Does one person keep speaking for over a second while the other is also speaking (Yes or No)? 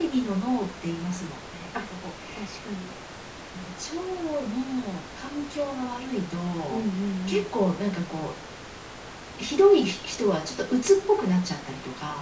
No